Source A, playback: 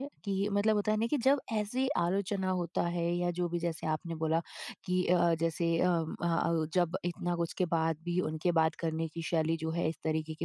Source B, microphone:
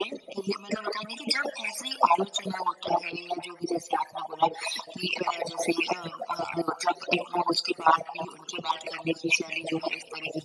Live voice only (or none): none